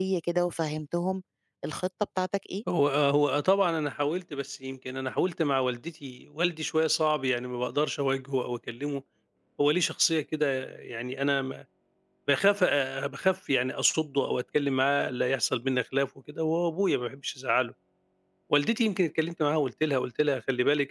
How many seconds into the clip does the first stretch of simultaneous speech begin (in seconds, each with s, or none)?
none